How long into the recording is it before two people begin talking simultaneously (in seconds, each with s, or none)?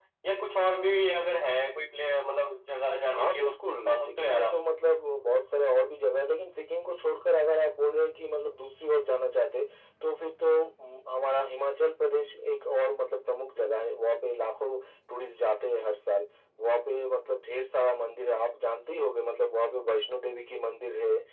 3.1 s